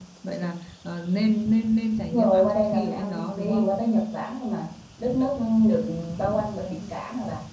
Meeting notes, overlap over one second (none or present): present